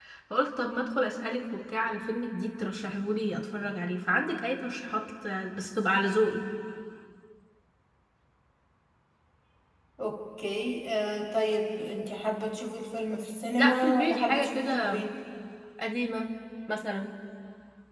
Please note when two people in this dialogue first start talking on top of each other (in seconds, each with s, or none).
13.6 s